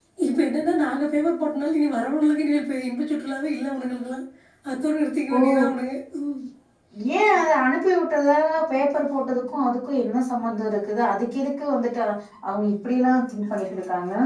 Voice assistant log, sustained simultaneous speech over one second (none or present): none